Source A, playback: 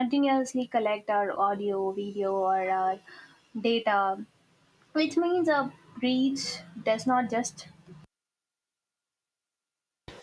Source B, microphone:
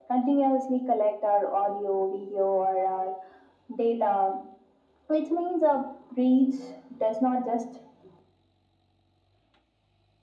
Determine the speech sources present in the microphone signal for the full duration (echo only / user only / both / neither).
echo only